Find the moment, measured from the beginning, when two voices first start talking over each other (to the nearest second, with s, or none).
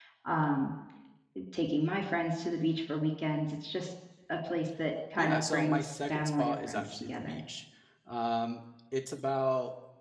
5 s